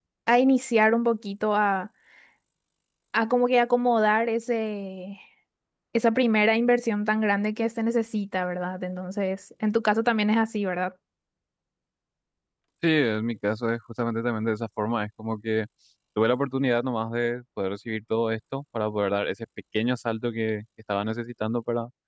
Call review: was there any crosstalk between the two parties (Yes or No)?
No